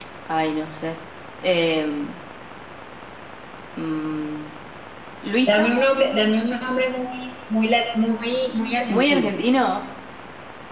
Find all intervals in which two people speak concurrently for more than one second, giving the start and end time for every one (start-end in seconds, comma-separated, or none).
none